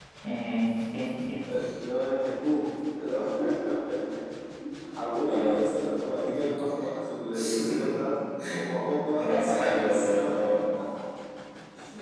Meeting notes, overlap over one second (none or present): present